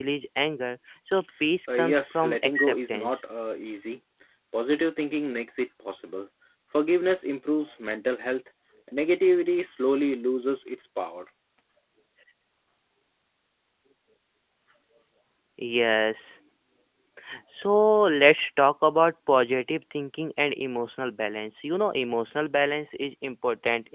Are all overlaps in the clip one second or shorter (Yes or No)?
No